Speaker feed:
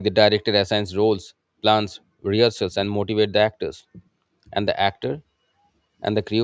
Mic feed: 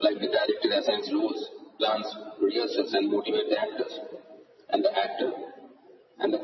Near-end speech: none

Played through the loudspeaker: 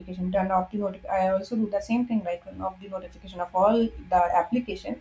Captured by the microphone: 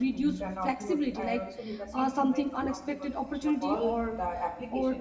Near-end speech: present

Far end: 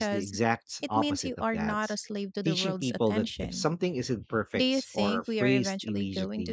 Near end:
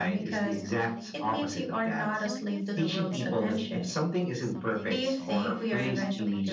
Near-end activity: present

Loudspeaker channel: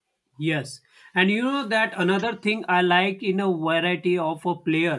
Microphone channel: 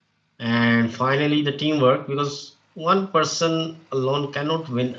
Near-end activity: present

